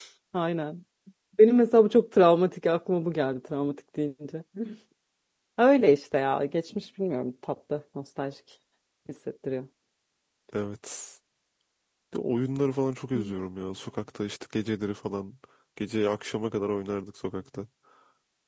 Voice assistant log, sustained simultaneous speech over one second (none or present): none